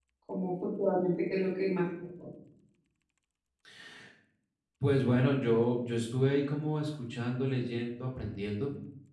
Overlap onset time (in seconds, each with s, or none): none